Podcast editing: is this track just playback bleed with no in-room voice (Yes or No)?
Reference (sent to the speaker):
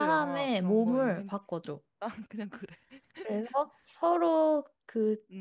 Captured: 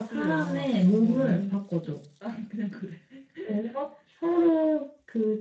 Yes